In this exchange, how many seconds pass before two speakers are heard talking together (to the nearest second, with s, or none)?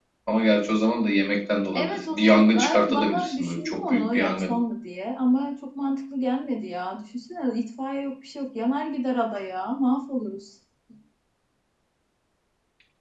2 s